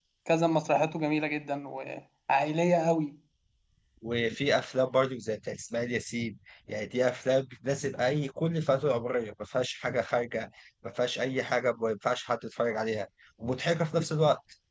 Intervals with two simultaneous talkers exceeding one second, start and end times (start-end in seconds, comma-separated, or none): none